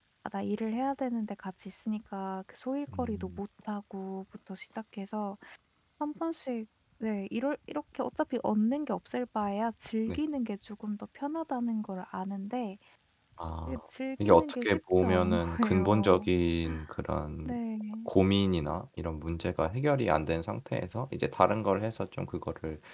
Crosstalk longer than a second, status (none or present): present